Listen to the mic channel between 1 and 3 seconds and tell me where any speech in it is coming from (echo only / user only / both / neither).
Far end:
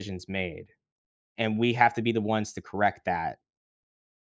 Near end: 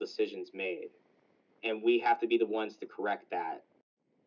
echo only